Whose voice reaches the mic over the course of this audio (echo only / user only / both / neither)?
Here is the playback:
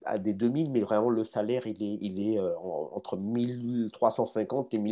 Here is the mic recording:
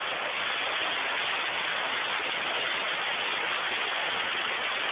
neither